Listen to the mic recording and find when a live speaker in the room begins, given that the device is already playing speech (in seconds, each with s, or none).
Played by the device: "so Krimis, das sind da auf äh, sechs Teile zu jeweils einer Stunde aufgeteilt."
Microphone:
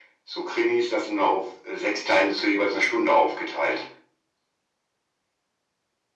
none